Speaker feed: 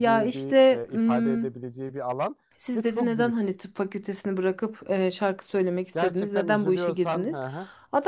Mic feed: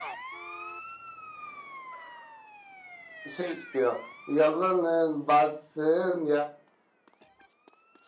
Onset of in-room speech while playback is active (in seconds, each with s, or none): 3.3 s